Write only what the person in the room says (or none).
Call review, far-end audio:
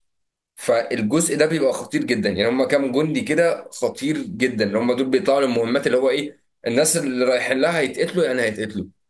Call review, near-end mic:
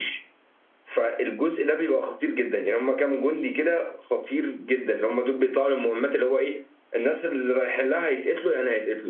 none